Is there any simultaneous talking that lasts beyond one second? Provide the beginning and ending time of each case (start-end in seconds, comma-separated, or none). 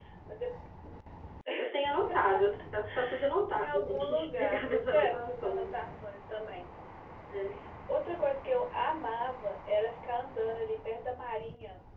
3.5-5.7